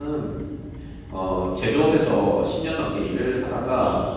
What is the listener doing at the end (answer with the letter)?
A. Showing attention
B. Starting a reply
A